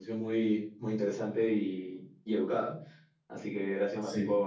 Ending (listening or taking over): listening